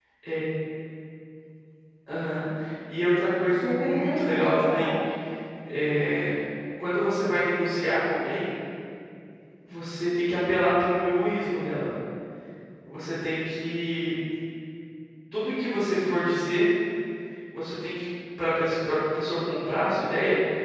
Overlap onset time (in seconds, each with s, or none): 3.5 s